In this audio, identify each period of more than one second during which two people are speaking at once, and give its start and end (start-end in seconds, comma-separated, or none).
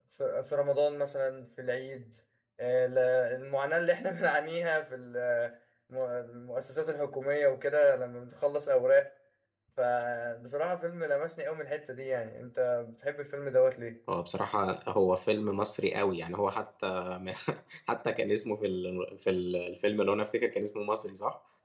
none